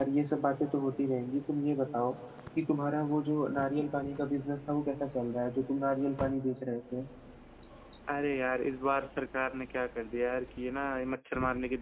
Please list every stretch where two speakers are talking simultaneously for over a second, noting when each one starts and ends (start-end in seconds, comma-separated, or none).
none